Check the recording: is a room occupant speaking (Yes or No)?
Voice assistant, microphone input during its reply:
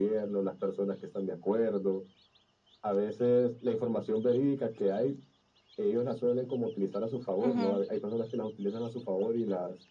Yes